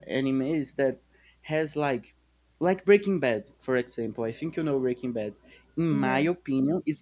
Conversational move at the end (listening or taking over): listening